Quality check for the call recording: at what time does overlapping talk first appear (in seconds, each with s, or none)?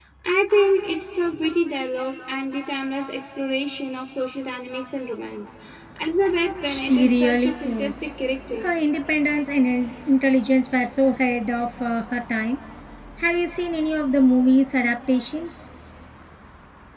6.7 s